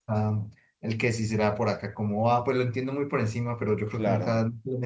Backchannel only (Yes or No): Yes